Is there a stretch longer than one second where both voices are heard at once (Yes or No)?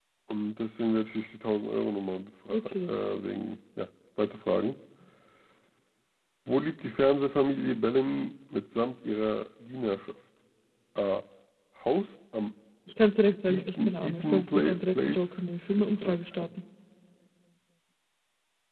Yes